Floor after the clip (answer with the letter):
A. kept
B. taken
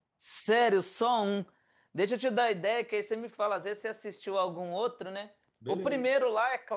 A